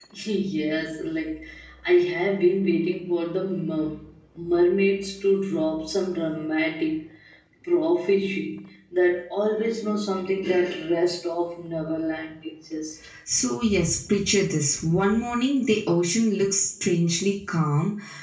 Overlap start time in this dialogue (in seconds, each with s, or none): none